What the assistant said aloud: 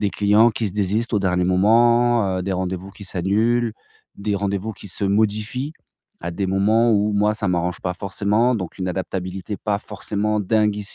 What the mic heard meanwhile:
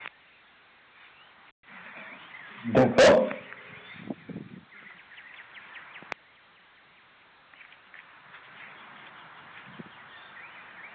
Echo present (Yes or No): No